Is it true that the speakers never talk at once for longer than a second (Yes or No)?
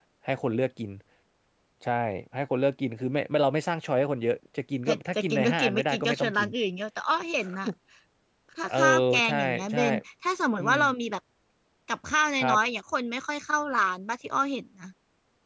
No